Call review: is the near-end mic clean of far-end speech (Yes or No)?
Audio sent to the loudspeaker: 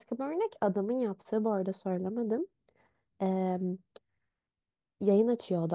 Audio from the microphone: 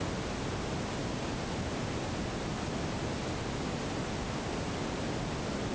Yes